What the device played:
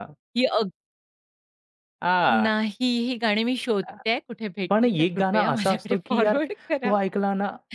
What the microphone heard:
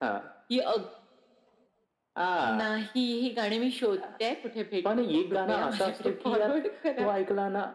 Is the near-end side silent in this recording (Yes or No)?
Yes